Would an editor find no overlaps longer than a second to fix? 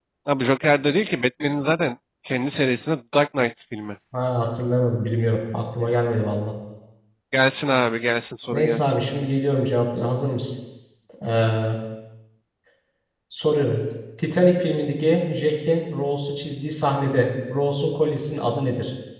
Yes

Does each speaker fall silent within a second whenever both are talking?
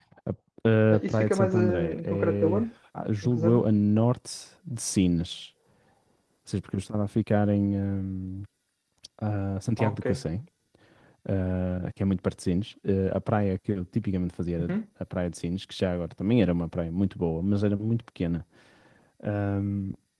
No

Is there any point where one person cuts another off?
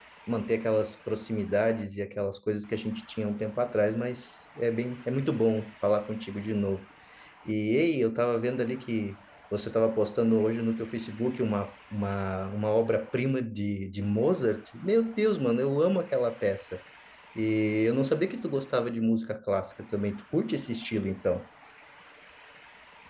No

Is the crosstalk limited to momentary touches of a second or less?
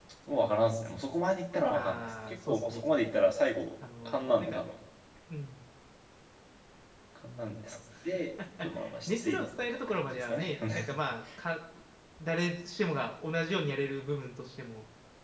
No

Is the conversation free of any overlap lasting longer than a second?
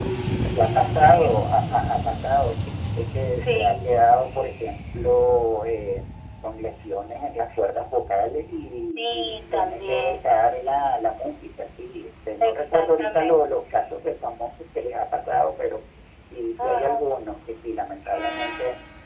No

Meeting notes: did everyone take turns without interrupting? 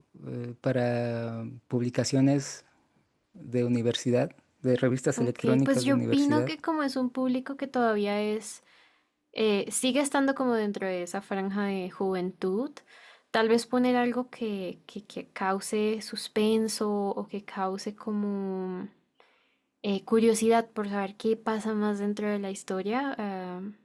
No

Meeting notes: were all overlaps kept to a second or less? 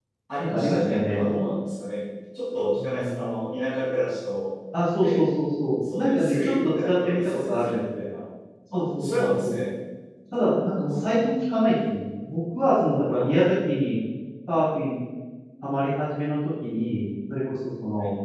No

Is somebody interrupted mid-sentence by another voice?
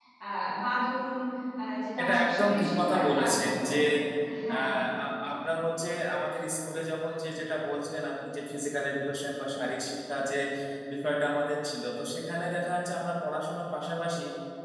Yes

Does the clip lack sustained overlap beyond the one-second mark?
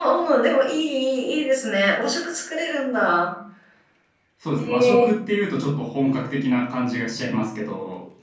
Yes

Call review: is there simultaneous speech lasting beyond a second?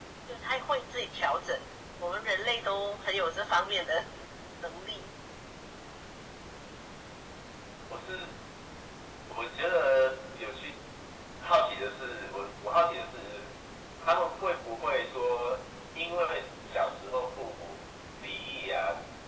No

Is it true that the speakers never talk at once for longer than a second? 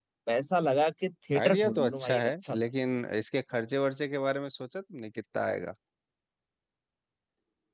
No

